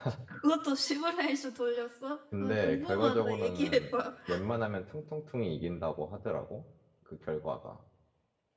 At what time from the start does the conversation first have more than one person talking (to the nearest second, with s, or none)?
2 s